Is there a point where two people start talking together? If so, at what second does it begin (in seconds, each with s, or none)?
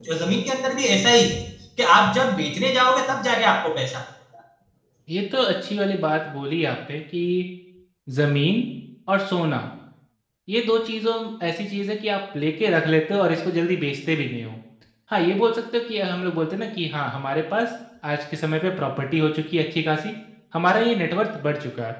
none